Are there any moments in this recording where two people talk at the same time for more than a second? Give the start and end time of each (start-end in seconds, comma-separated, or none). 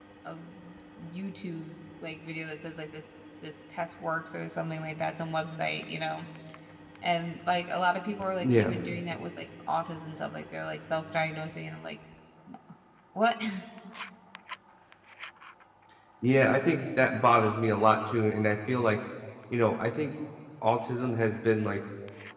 none